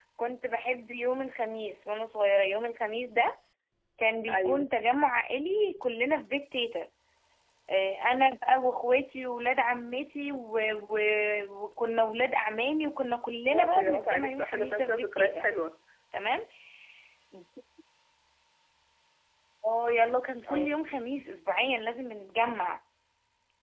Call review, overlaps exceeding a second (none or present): present